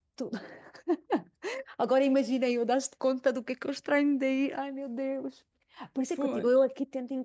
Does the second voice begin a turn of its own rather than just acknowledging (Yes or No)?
No